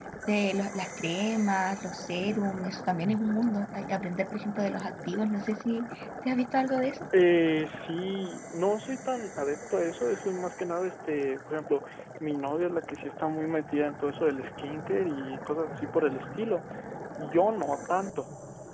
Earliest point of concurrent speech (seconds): none

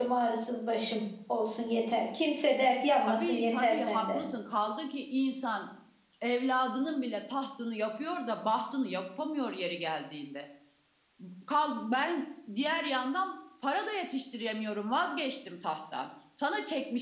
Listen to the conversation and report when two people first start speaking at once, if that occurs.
3 s

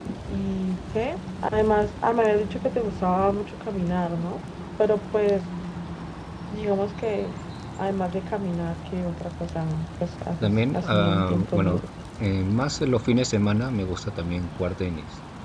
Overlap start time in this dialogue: 10 s

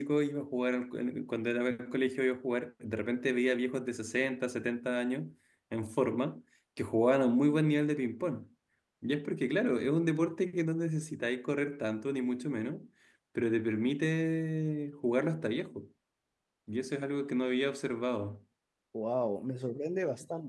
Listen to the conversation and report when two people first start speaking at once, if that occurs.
none

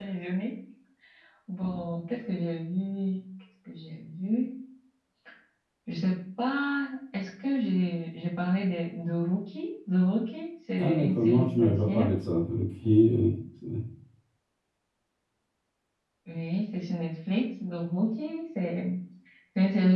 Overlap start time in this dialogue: 11 s

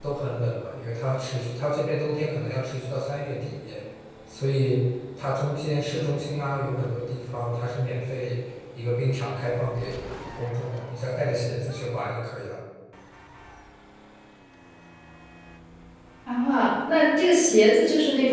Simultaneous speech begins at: none

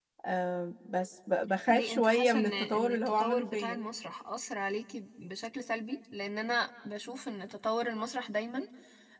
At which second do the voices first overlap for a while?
2 s

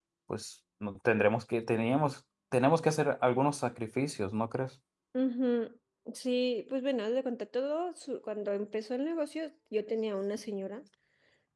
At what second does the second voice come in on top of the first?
none

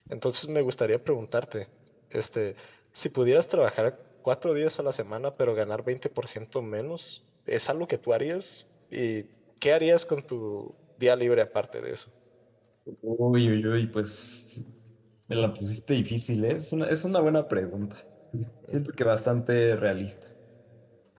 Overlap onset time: none

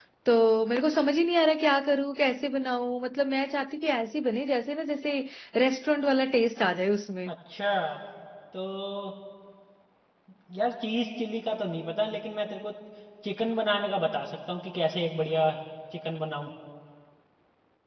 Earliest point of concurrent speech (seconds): none

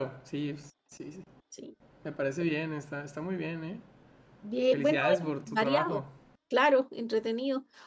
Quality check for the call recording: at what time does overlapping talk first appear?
5 s

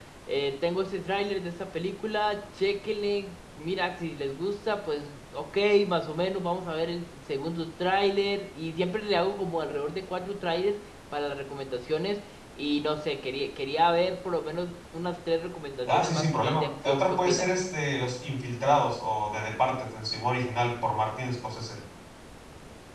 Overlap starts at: 16 s

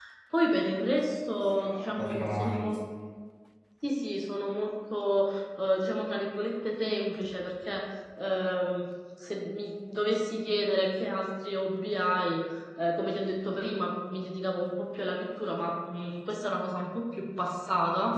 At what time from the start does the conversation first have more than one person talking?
1 s

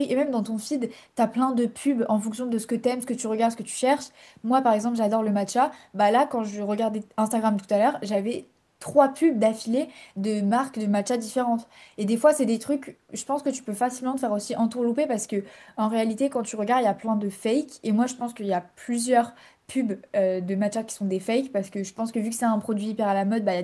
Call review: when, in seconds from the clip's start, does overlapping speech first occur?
none

